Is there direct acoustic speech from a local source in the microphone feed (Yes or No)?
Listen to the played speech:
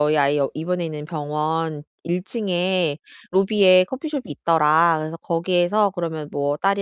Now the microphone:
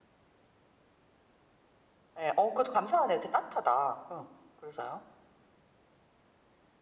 Yes